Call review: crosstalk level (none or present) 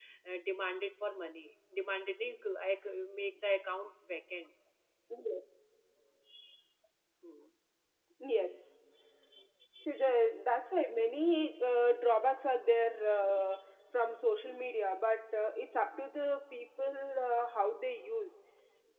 none